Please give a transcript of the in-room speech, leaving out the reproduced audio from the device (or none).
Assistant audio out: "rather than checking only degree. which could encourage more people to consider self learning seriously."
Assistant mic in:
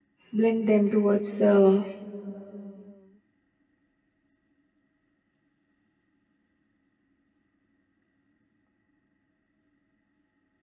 blend them towards the